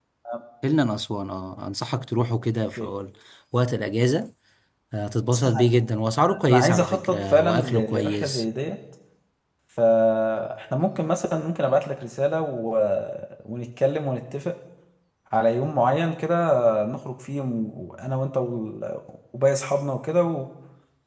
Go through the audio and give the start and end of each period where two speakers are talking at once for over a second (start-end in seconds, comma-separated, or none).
6.5-8.4